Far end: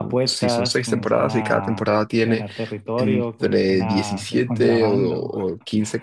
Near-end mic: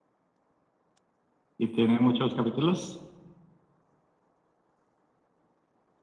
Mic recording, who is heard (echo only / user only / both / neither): user only